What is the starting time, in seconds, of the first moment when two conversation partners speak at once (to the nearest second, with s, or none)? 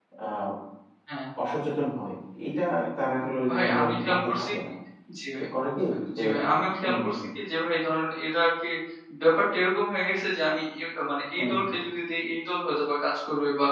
3 s